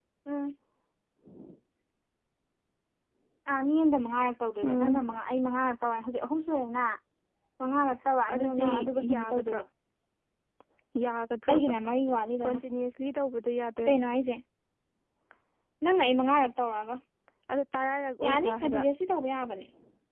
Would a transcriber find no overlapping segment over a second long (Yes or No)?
No